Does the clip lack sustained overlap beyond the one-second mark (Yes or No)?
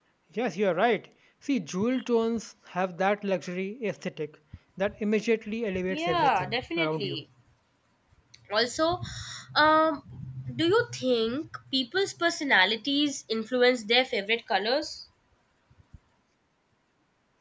No